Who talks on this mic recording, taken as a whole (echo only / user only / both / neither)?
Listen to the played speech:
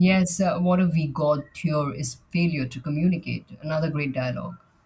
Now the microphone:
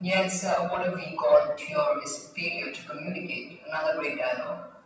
echo only